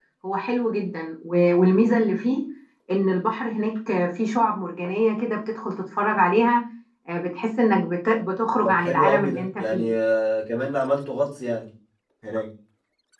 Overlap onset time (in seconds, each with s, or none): 8.6 s